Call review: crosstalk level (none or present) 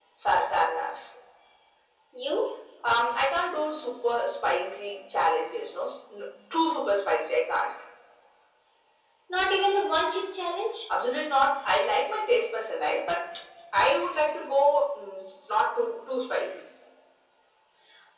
none